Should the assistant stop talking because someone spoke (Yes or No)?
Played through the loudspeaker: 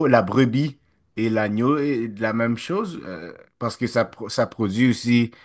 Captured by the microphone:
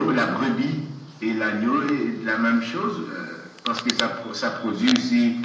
No